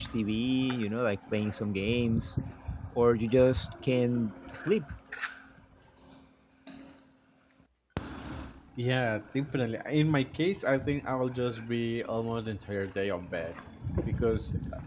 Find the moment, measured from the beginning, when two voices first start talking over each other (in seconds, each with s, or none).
none